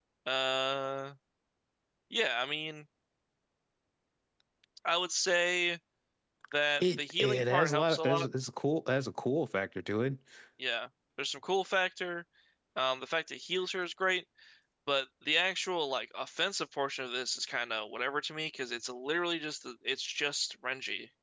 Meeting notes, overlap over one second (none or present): present